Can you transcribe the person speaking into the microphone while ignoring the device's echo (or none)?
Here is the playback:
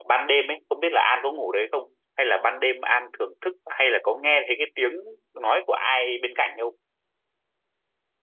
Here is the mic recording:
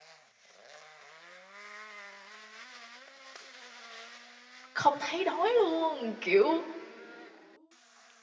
không thấy đói luôn kiểu